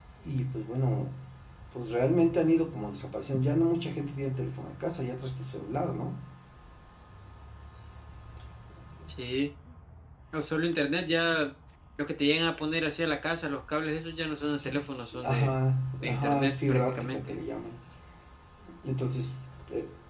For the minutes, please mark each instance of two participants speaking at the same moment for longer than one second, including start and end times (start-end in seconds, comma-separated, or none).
16.0-17.3